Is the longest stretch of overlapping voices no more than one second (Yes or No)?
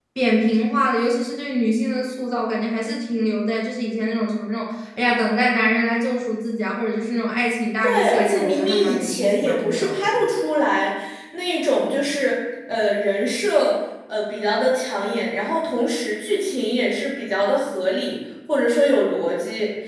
No